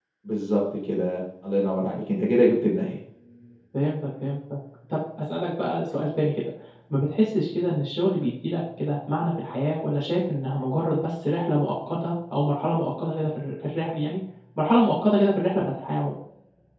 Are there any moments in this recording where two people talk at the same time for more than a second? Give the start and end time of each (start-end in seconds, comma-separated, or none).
none